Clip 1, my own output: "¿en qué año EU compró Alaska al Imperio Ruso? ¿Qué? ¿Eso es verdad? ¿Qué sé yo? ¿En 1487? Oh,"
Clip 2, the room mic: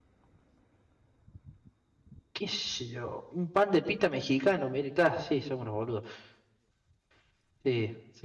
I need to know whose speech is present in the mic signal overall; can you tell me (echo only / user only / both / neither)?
user only